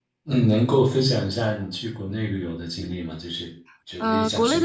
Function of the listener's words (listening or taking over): taking over